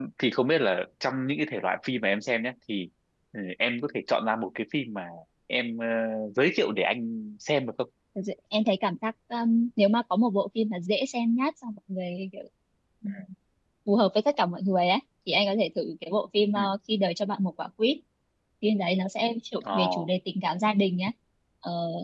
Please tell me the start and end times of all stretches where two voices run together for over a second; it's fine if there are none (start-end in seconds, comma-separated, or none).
none